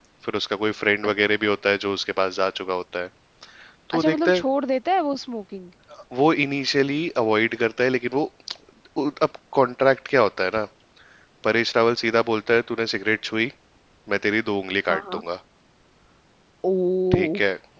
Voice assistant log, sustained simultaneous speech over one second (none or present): none